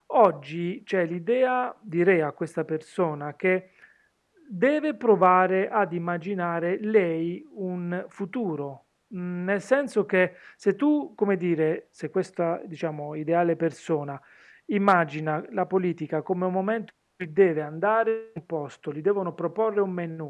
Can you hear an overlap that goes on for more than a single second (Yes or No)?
No